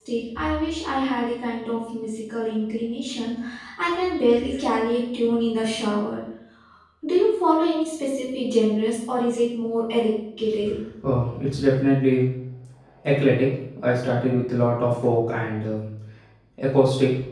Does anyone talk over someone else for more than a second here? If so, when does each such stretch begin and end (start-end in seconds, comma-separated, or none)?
none